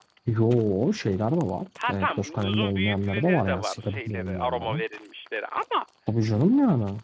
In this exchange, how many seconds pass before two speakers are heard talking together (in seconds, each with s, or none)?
1.8 s